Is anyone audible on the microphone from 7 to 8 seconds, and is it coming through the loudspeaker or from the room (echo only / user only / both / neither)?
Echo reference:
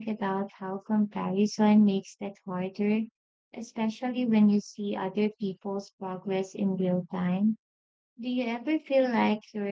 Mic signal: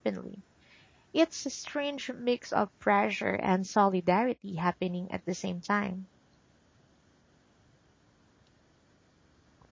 neither